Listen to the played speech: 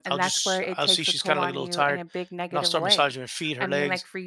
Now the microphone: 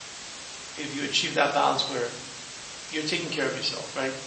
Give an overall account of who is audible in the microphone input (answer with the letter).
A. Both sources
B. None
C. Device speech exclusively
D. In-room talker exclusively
D